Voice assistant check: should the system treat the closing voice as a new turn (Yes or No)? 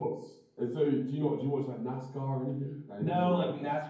Yes